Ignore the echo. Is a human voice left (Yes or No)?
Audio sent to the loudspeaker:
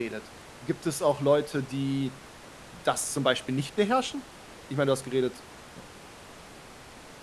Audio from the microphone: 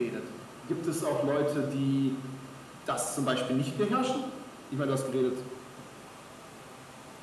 No